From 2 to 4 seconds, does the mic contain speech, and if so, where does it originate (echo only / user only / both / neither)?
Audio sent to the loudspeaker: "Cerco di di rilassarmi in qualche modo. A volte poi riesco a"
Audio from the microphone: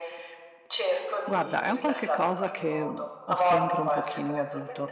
both